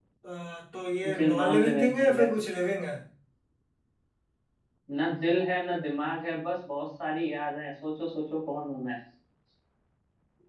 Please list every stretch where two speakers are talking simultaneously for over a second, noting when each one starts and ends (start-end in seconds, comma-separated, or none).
1.1-2.3